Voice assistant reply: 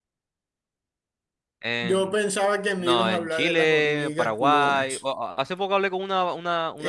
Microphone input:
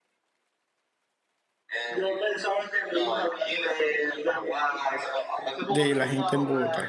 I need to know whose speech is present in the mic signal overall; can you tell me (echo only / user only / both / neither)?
both